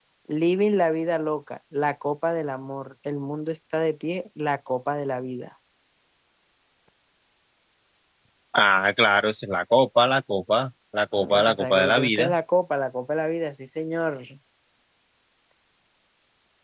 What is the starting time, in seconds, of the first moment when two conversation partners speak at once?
11.1 s

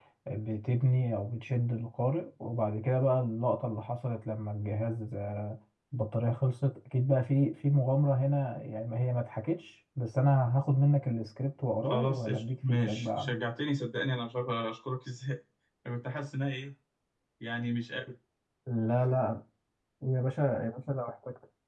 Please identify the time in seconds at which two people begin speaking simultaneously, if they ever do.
11.8 s

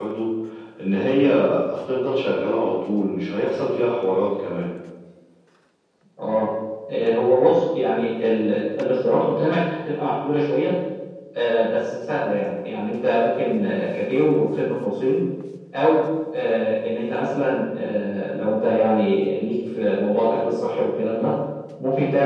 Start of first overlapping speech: none

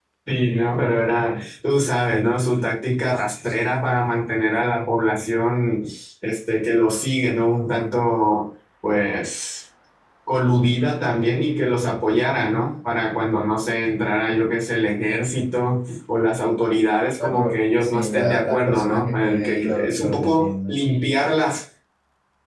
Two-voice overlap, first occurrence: 17.2 s

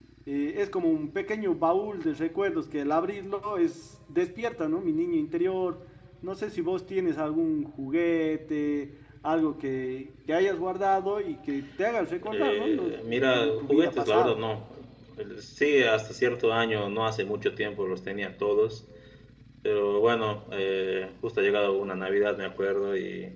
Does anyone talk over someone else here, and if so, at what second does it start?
12.2 s

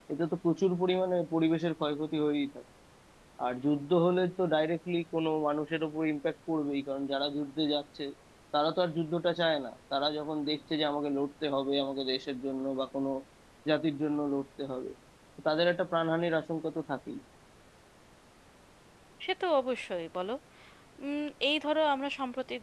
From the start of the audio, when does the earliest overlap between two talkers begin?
none

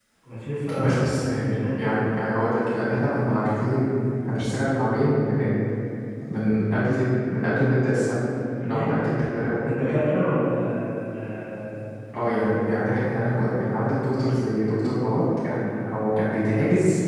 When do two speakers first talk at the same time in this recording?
0.8 s

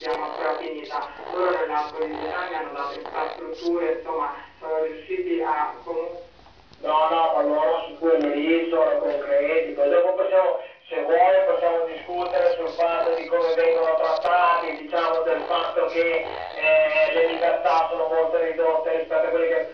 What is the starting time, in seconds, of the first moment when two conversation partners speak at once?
none

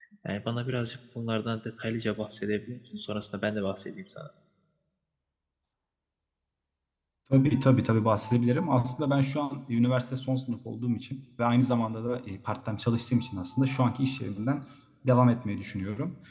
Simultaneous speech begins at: none

